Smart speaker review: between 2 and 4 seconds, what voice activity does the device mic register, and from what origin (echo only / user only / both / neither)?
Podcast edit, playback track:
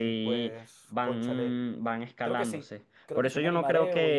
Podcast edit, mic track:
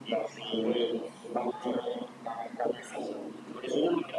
echo only